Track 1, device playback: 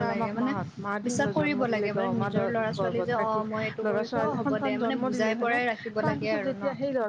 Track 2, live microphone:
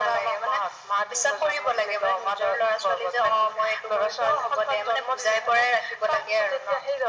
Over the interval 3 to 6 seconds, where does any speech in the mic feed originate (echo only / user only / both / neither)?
echo only